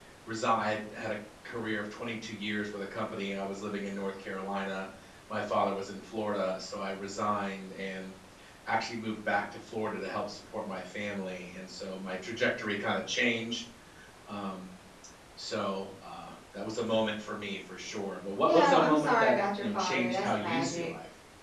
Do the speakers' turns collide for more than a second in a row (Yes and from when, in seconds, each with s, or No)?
Yes, from 18.4 s